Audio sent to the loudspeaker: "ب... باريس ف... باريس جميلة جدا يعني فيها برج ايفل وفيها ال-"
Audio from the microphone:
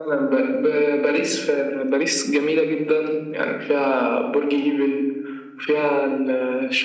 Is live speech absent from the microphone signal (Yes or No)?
Yes